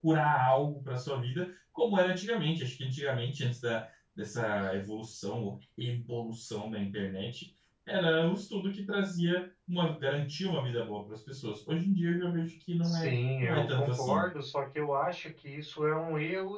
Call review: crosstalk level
present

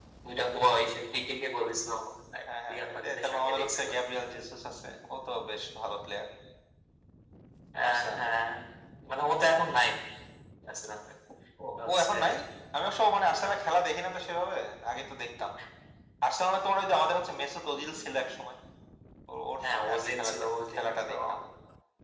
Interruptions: present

